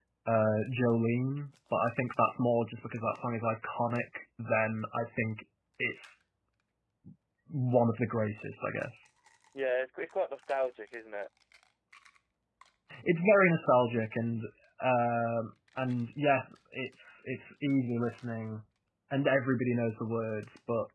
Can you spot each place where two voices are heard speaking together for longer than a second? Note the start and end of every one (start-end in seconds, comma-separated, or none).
none